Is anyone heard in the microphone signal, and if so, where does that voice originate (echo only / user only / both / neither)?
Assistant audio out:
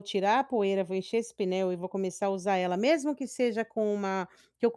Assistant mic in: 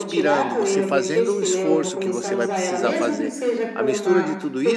both